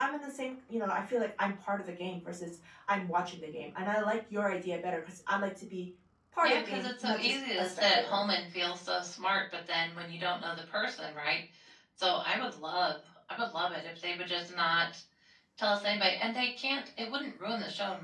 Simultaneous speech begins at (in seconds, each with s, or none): 6.4 s